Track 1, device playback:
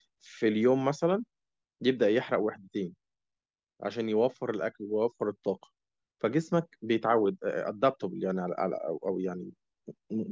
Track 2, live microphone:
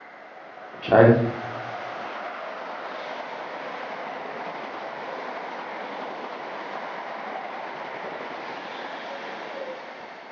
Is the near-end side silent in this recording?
No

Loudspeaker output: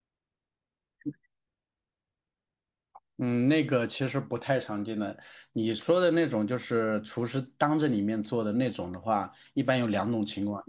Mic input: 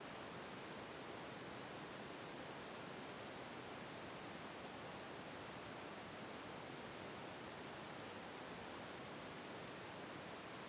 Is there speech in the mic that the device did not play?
No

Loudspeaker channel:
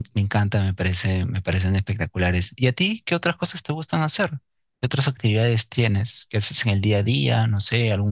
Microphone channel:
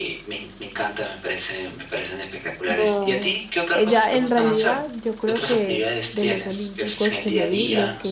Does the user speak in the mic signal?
Yes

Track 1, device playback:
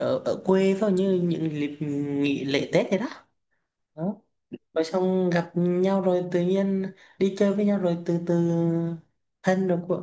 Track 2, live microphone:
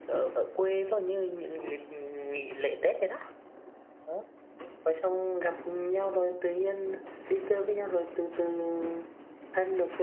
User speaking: No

